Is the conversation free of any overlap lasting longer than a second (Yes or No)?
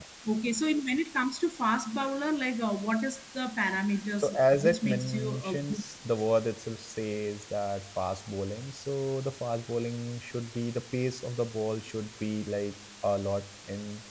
No